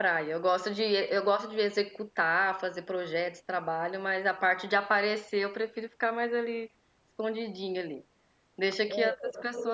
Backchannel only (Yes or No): Yes